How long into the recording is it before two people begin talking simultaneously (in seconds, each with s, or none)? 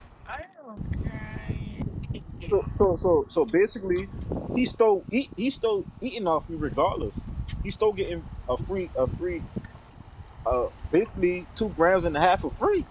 none